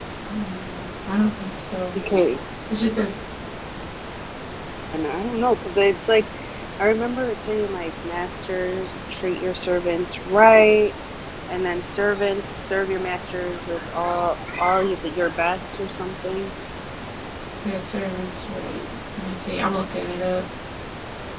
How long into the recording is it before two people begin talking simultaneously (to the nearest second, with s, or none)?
none